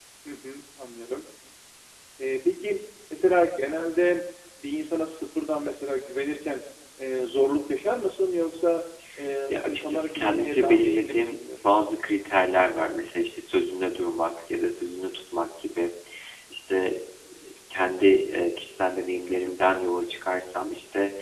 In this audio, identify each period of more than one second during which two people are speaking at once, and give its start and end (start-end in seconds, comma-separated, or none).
9.5-11.4